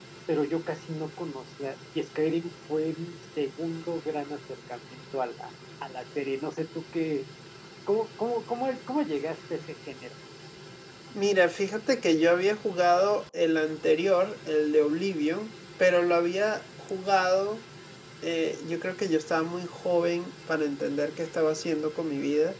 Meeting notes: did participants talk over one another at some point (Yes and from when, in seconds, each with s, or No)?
No